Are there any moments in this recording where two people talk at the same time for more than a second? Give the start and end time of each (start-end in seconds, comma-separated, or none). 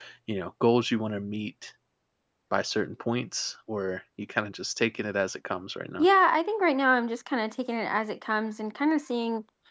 none